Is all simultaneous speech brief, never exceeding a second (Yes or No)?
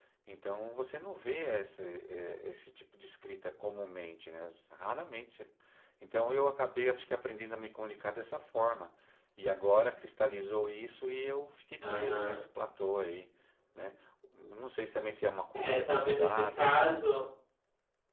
No